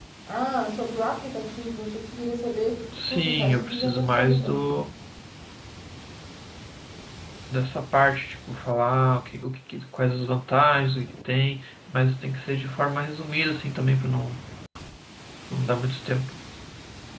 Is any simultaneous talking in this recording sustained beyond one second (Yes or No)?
Yes